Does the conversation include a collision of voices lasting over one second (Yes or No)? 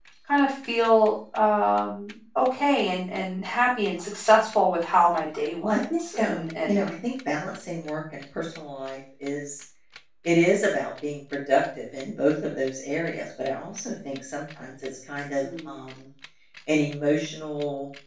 Yes